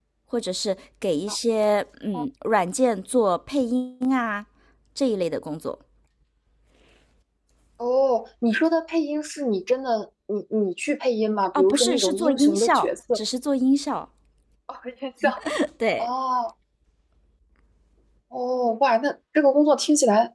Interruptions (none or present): present